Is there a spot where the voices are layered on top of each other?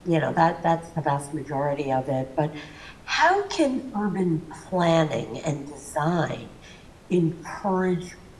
No

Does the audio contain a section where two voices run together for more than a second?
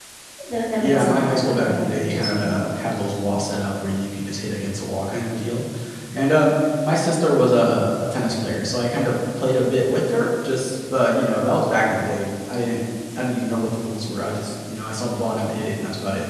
Yes, from 0.8 s

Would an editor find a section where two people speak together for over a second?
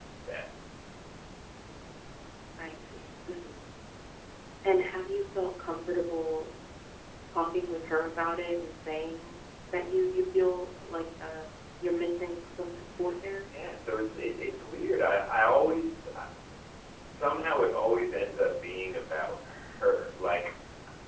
No

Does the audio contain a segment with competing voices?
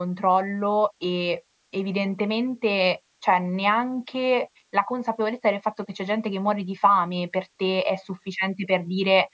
No

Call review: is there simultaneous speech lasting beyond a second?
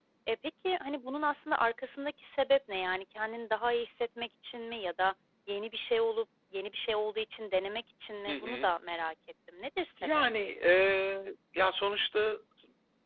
No

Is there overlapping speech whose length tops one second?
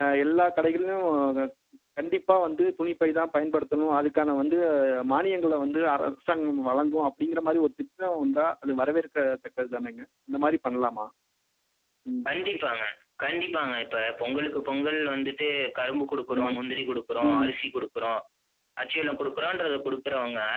No

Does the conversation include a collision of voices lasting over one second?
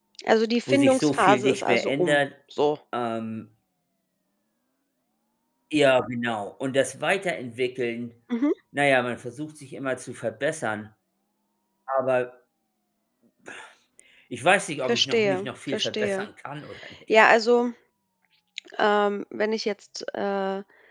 Yes, from 0.7 s

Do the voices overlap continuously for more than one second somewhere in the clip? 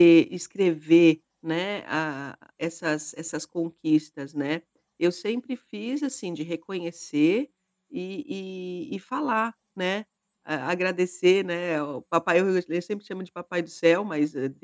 No

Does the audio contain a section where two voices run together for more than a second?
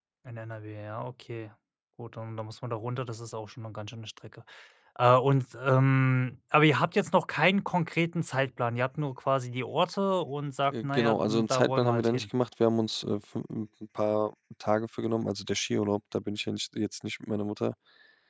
Yes, from 10.7 s

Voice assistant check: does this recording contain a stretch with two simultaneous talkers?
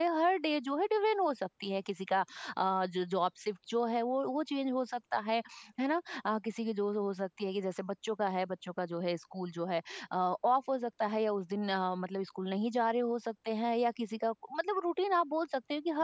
No

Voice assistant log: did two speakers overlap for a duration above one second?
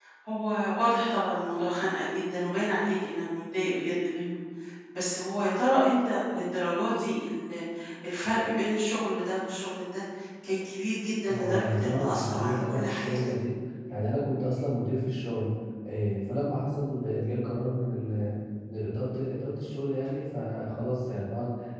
Yes, from 11.3 s

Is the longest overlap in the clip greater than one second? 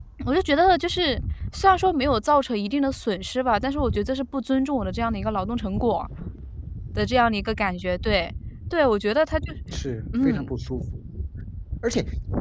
No

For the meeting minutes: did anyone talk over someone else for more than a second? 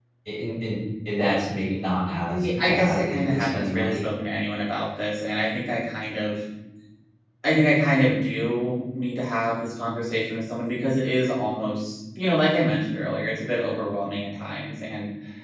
Yes, from 2.1 s

